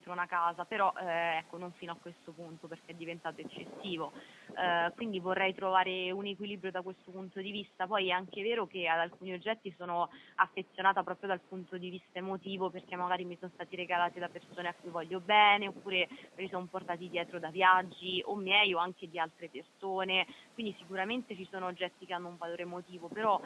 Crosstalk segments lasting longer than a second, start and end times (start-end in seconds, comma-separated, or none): none